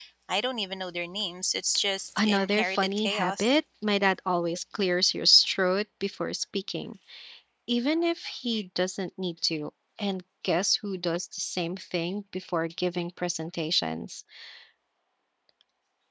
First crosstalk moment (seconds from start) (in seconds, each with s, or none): 2.2 s